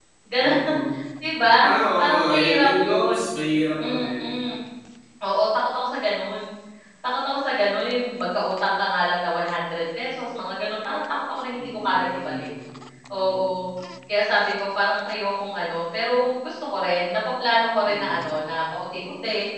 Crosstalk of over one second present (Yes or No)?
Yes